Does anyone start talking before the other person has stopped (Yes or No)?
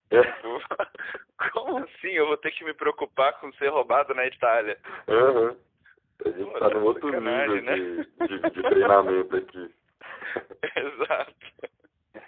Yes